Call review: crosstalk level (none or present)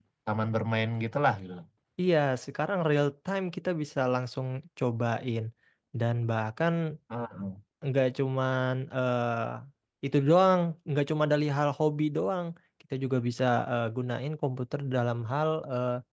none